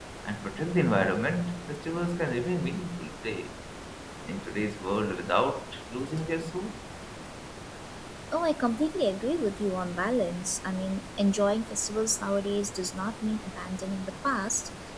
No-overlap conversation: Yes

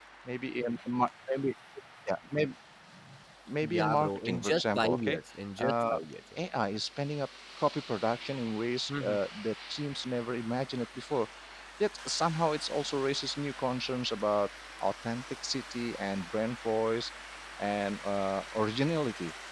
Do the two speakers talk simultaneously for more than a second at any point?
Yes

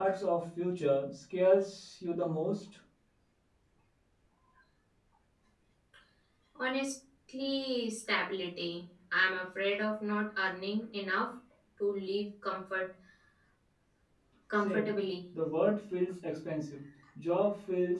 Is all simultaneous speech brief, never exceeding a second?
Yes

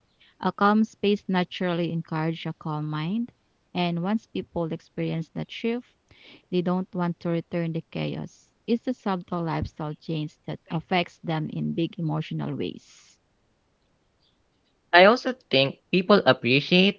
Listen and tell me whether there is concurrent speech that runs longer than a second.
No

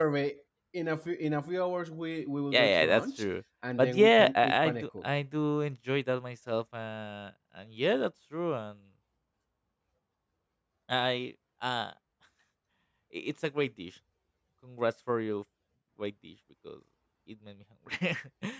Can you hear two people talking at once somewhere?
Yes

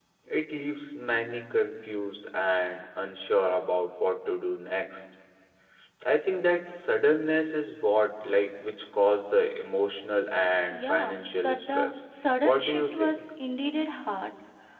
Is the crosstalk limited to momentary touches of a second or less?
No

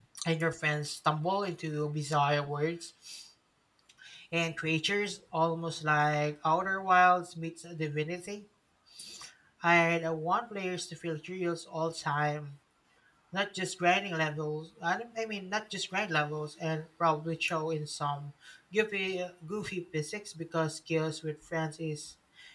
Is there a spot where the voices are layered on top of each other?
No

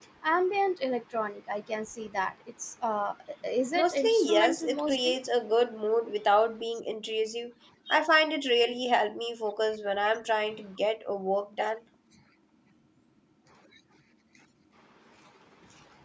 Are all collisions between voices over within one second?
No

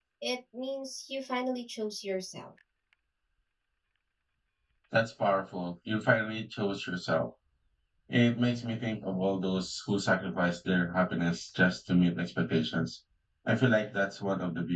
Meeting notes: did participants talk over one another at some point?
No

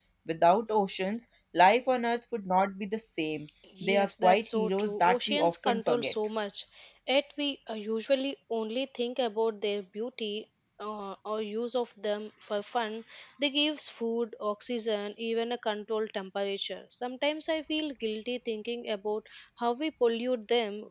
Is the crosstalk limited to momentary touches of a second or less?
No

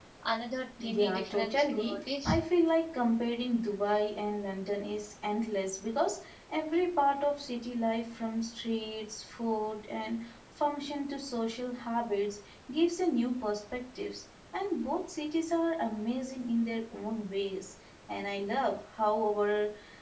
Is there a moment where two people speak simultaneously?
Yes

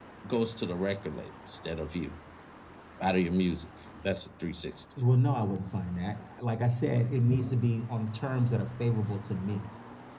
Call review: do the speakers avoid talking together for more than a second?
Yes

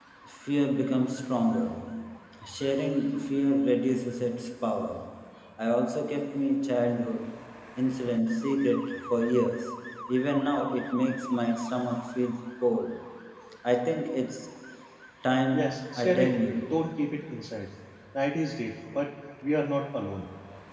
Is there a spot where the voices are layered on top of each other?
Yes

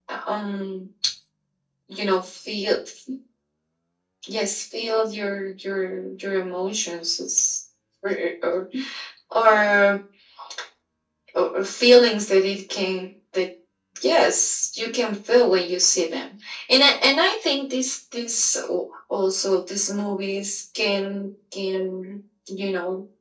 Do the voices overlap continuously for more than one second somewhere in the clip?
No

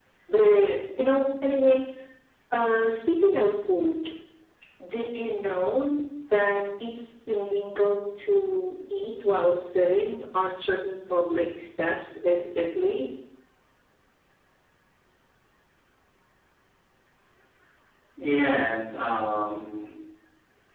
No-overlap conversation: Yes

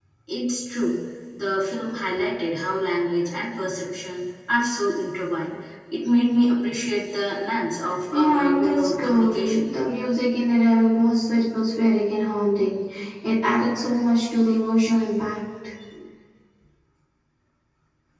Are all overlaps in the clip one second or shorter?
No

